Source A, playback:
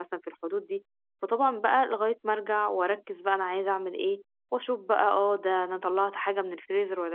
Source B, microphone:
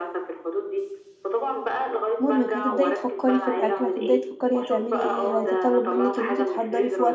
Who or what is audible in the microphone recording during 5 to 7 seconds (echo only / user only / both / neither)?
both